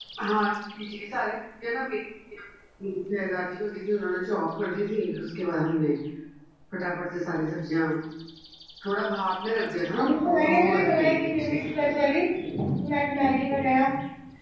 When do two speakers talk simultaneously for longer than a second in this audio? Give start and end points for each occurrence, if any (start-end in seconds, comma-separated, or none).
10.0-11.7